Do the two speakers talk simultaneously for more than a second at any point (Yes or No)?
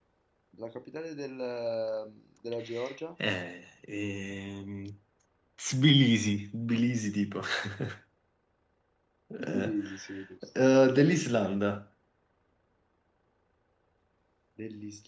No